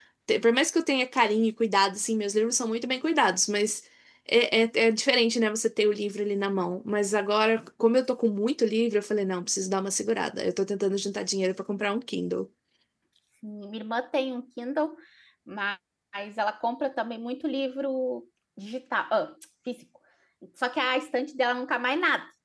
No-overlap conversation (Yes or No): Yes